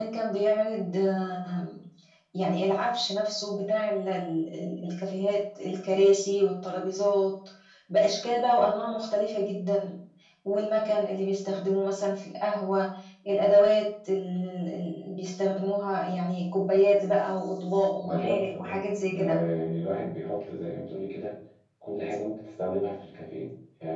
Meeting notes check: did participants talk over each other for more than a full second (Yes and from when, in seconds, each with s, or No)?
Yes, from 18.0 s